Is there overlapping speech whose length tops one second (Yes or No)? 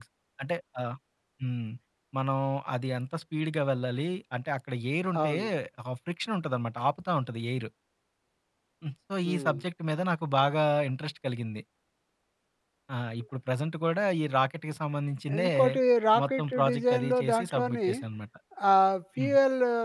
Yes